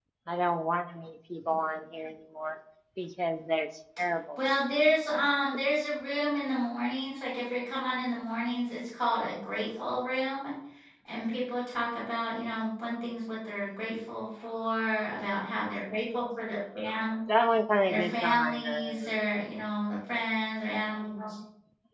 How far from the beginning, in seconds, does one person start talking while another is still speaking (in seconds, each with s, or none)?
17.9 s